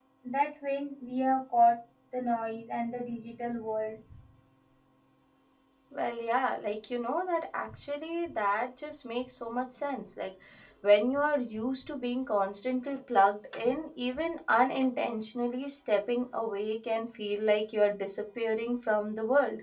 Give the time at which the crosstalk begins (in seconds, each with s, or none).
none